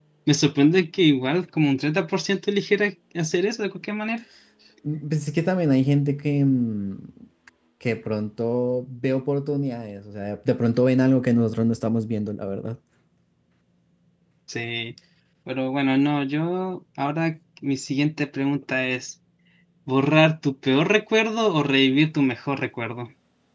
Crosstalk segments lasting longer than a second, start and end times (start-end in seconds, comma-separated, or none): none